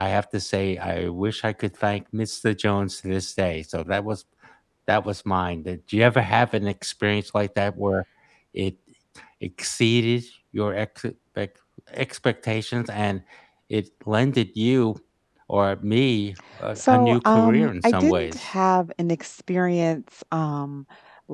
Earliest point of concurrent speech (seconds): 17 s

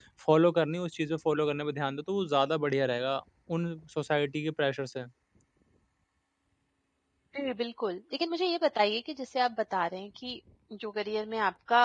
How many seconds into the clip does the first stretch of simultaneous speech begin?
none

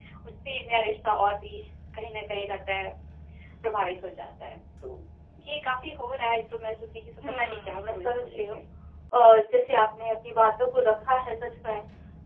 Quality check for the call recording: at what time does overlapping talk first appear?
7 s

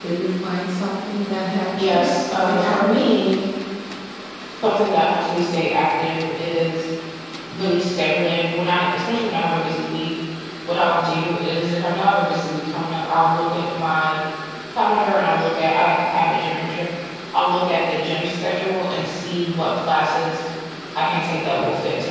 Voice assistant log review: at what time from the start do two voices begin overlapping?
2 s

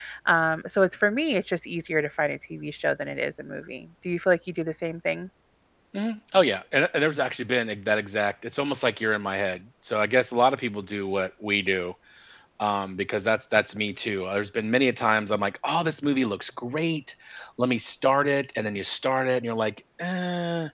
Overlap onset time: none

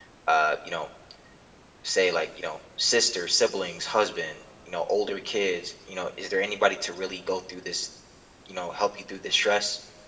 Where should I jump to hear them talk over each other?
none

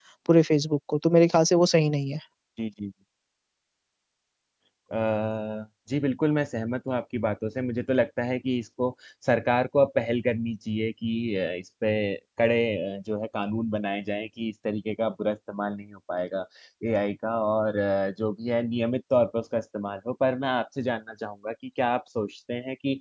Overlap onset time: none

